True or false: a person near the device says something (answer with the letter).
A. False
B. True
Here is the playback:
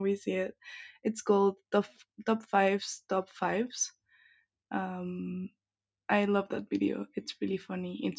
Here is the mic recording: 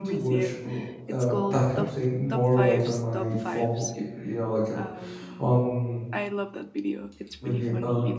B